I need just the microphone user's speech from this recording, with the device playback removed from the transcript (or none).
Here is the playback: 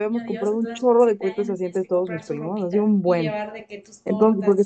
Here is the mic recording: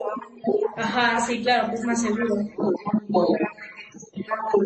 ajá, sí, claro, pues más seguro.